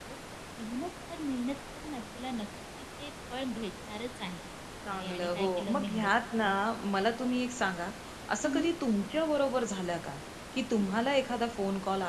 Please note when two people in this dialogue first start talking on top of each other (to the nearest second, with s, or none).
5 s